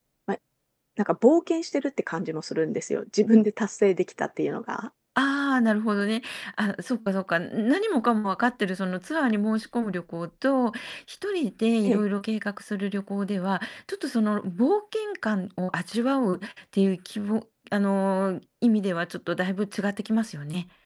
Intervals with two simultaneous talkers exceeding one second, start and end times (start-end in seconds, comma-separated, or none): none